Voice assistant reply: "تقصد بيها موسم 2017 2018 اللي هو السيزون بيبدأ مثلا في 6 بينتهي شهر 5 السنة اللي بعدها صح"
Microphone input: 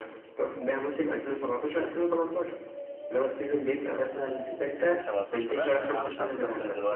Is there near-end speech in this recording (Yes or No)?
Yes